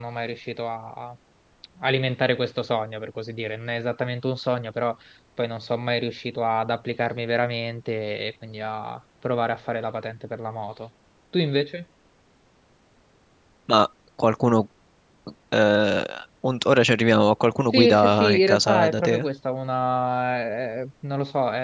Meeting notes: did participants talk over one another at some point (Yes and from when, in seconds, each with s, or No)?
Yes, from 17.7 s